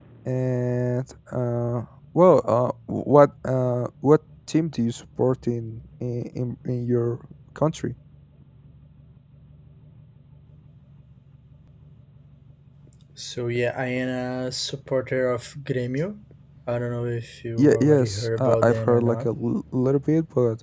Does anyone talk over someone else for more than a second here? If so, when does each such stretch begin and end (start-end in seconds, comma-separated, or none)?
17.6-19.3